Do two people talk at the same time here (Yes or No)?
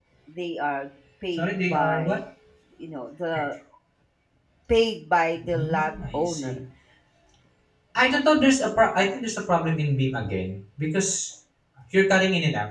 Yes